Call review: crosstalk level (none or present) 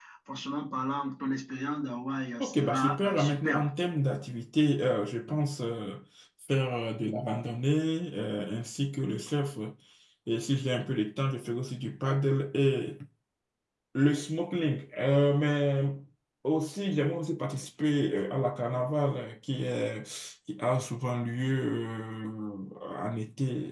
present